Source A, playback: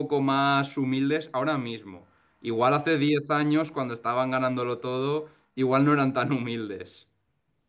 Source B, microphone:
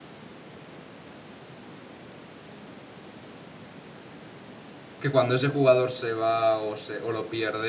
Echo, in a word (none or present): none